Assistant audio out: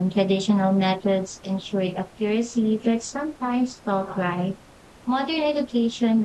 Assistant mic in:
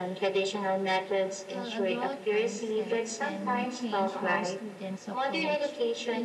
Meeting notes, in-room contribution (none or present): present